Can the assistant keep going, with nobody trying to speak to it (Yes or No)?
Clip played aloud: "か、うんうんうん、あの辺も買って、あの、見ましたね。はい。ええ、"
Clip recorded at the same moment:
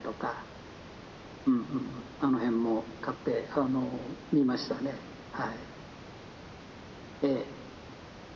Yes